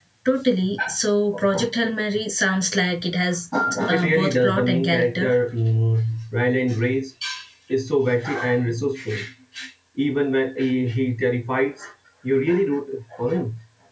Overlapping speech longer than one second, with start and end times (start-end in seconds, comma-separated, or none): 3.9-5.3